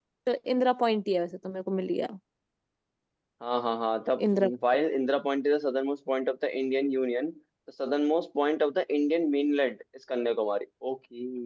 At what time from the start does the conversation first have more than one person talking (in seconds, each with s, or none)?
none